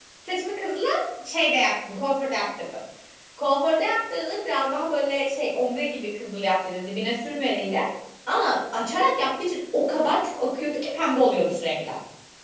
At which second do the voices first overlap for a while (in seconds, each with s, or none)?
none